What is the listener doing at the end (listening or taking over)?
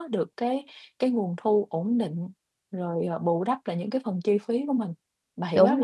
taking over